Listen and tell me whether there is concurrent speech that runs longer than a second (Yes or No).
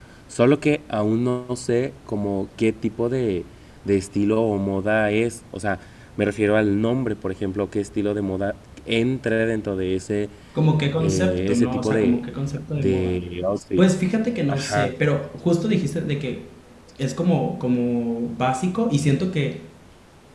Yes